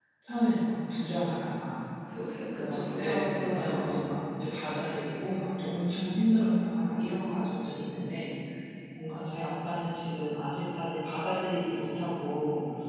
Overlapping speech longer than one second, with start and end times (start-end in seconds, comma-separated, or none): 2.5-4.0